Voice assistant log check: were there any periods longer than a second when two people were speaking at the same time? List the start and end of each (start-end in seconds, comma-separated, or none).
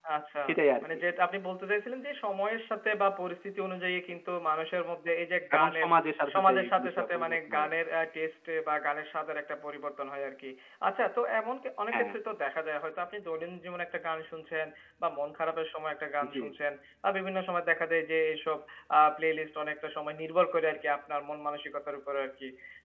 6.3-7.7